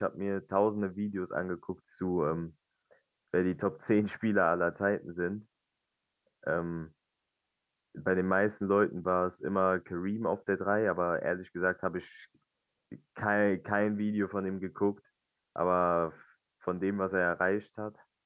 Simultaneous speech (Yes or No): No